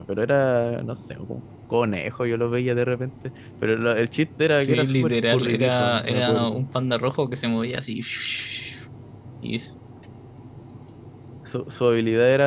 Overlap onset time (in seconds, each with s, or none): 4.6 s